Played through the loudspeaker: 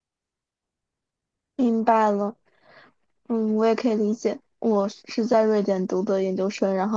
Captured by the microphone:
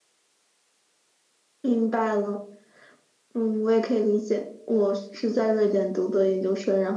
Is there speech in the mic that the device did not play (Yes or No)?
No